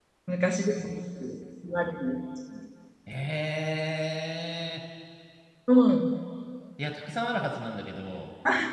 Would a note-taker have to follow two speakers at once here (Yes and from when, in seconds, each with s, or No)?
No